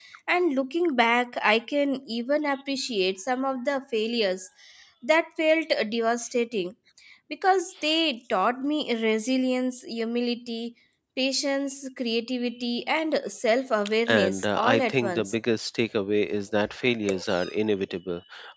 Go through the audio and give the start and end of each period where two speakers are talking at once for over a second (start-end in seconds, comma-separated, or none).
14.1-15.3